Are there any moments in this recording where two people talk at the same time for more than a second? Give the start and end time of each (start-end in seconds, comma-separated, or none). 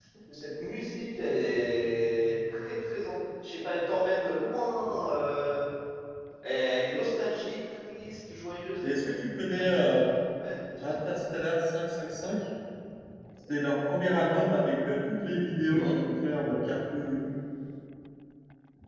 none